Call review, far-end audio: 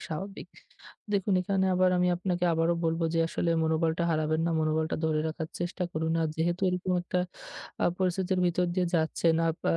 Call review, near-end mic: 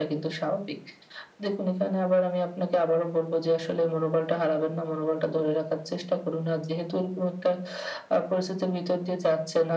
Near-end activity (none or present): none